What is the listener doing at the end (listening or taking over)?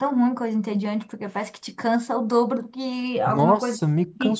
taking over